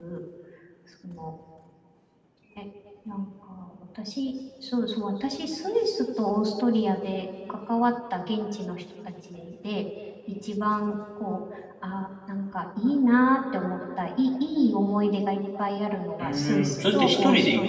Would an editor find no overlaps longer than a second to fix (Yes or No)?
No